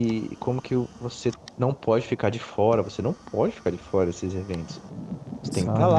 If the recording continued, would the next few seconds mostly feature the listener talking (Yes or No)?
No